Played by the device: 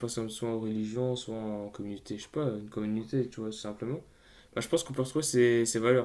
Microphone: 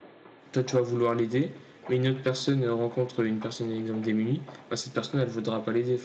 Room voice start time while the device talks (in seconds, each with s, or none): 0.5 s